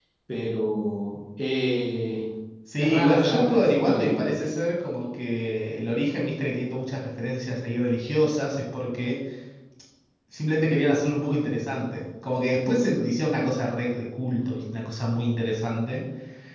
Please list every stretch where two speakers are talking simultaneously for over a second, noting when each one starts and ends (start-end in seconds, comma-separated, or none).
2.8-4.2